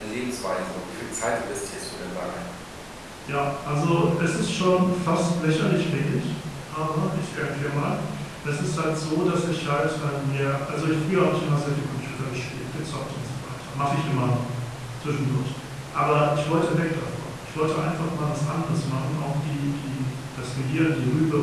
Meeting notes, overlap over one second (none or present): none